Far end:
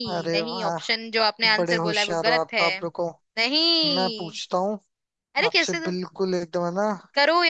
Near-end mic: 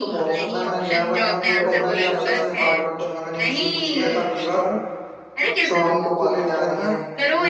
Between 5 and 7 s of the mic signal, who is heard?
both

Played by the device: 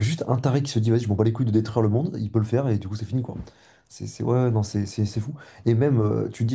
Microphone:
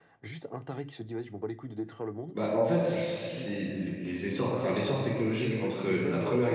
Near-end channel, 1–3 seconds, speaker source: both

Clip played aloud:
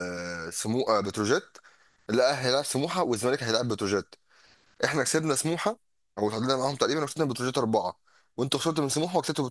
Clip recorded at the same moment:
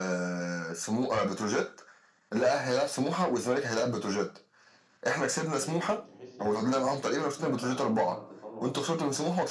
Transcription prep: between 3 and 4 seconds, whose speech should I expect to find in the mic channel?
echo only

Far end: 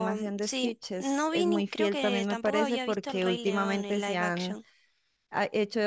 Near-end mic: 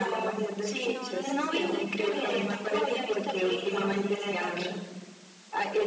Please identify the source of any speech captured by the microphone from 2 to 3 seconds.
both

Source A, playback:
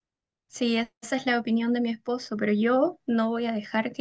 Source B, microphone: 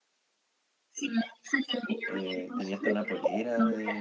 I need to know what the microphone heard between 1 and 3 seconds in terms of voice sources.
both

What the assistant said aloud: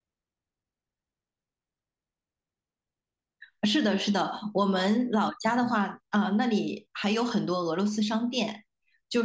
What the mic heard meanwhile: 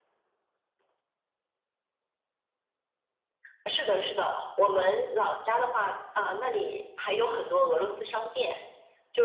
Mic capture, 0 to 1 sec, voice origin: neither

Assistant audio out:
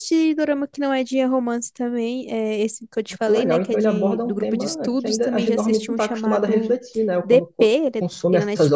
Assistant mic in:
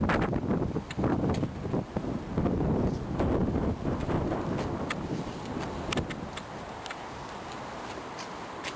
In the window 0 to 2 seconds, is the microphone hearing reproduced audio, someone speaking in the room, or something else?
neither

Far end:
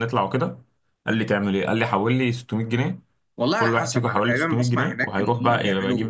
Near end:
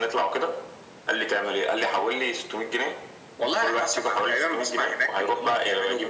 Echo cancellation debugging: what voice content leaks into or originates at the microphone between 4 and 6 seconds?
echo only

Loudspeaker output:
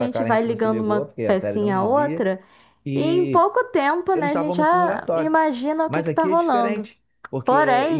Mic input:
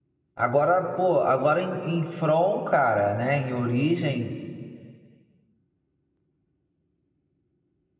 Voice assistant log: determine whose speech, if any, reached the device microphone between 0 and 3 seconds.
user only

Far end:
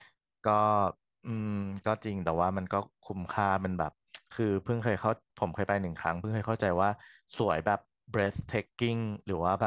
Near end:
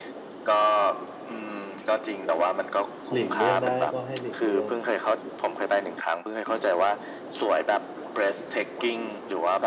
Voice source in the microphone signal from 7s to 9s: echo only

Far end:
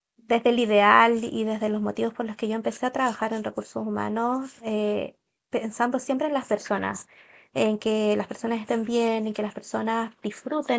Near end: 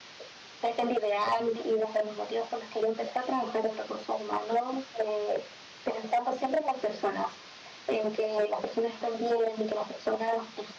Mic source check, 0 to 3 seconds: echo only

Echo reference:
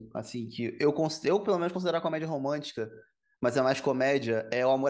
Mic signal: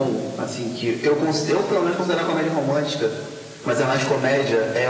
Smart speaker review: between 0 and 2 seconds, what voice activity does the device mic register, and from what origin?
echo only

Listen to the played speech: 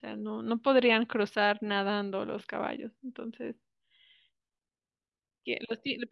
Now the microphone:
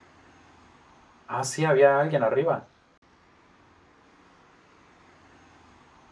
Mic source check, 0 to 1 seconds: neither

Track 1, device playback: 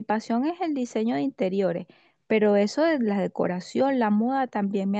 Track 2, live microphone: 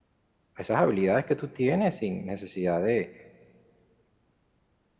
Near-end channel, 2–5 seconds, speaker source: user only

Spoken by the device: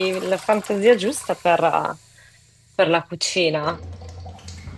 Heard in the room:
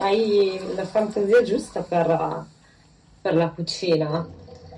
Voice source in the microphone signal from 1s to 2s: echo only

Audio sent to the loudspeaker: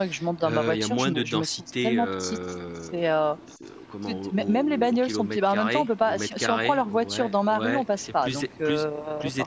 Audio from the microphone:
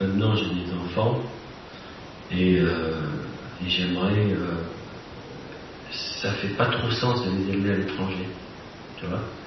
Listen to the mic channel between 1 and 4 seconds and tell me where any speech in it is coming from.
user only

